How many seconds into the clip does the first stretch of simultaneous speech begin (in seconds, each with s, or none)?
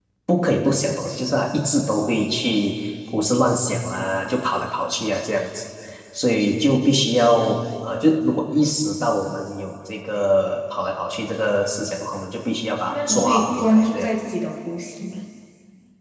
12.9 s